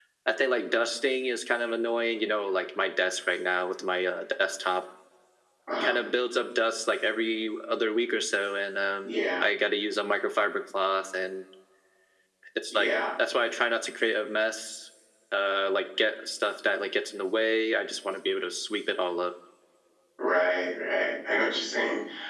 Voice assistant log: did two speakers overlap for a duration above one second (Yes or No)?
No